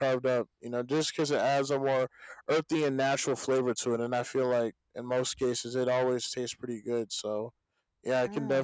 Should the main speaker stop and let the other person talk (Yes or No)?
No